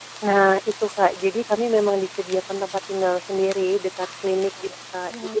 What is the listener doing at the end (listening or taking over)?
listening